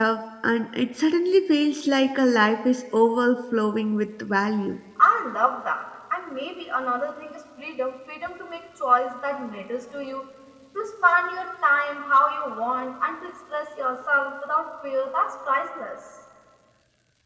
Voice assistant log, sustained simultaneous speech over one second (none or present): none